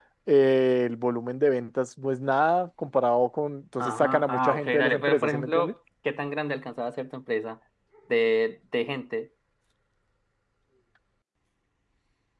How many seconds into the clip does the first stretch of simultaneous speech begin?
4 s

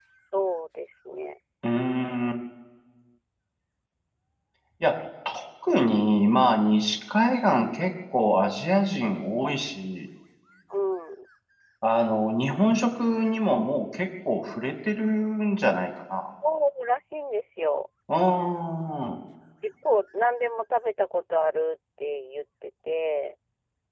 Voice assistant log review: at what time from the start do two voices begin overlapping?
none

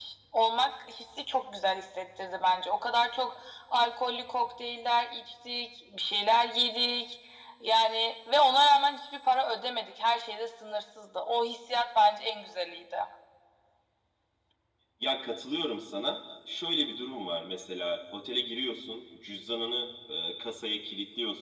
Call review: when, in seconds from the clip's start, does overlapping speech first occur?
none

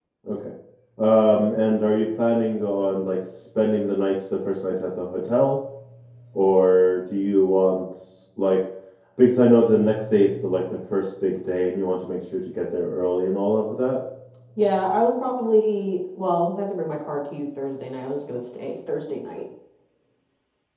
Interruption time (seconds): none

